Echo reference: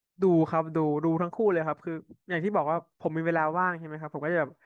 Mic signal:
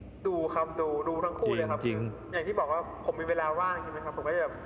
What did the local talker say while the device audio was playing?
จริงจริง

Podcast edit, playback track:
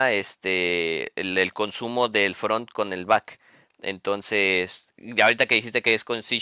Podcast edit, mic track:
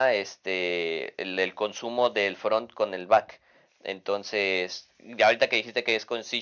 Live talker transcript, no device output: none

